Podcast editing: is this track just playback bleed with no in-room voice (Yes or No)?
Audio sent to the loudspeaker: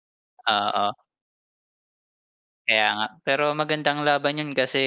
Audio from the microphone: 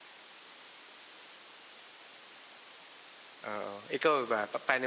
No